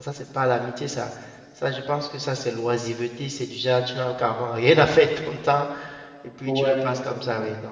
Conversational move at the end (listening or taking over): listening